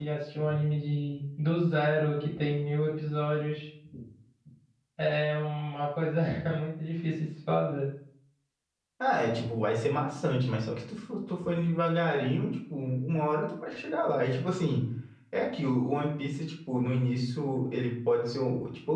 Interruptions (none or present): none